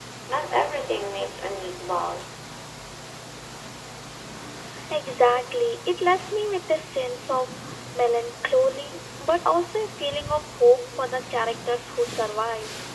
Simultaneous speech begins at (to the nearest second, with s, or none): none